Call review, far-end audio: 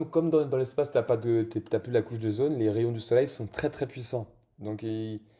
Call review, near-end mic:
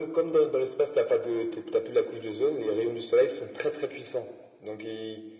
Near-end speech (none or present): none